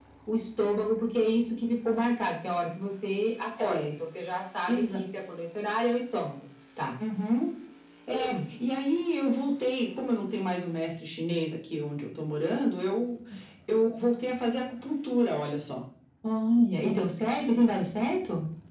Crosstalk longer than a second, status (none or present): none